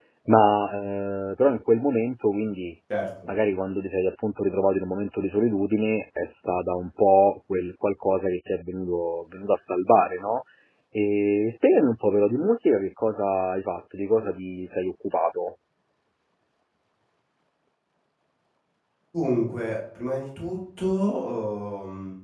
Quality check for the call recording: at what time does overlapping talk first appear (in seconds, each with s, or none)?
none